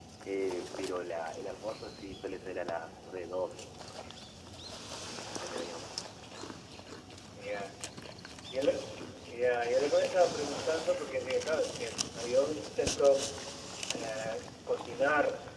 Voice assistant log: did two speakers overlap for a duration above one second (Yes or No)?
No